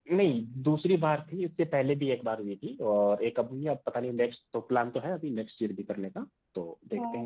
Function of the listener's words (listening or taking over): taking over